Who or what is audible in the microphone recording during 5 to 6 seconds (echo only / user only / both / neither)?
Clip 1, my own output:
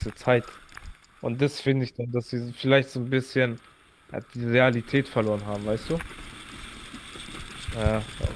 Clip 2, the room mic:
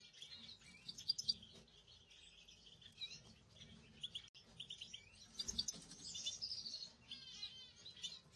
neither